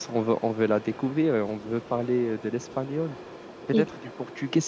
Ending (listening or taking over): listening